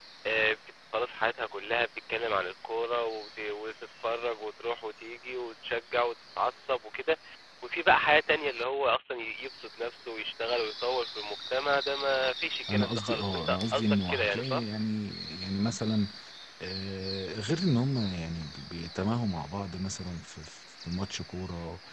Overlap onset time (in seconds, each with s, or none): 12.7 s